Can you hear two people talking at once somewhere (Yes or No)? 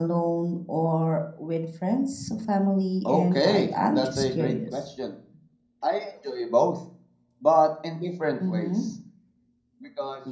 Yes